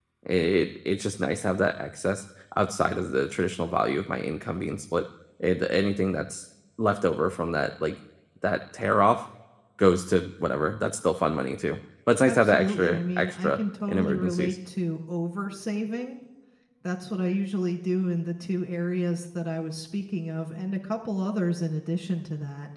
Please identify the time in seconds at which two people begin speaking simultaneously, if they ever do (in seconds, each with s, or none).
12.2 s